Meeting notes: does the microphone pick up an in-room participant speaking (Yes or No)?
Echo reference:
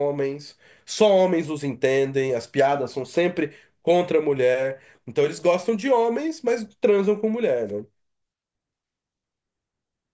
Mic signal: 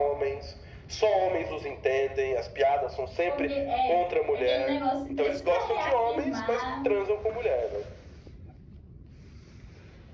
Yes